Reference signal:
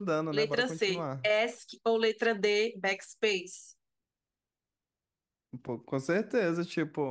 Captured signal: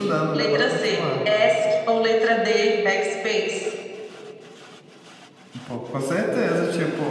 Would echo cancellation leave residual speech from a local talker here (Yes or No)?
No